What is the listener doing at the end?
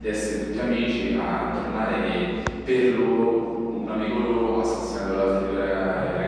taking over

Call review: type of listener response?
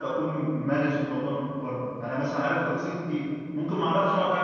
listening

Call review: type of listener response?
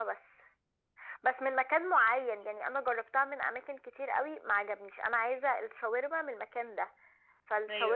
listening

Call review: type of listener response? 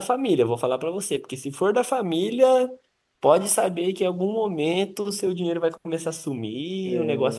listening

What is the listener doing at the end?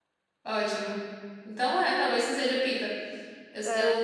listening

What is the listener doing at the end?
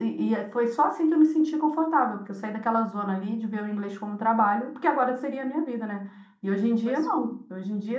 listening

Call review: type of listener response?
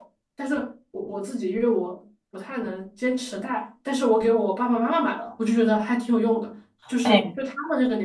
listening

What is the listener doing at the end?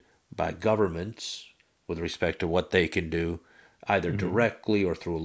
listening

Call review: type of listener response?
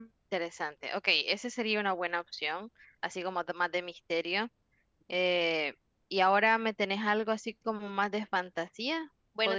taking over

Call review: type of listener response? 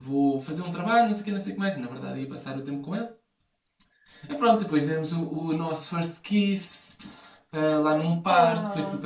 listening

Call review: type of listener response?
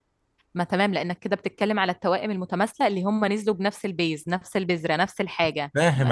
listening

